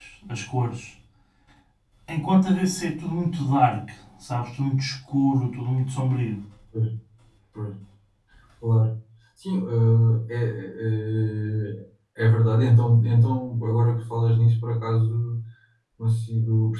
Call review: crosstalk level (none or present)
none